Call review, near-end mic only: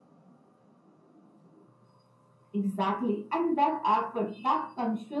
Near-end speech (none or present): none